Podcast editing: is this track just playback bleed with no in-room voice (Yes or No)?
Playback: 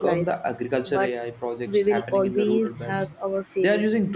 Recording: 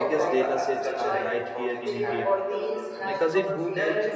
No